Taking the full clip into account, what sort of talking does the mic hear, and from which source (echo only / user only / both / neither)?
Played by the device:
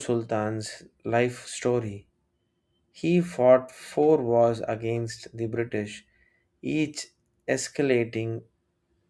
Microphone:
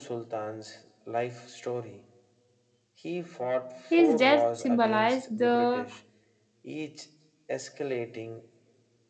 both